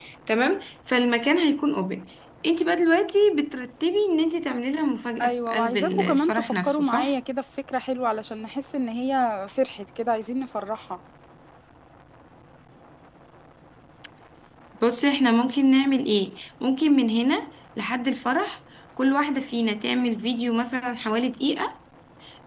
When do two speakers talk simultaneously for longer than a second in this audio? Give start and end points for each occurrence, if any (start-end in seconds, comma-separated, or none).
5.2-7.1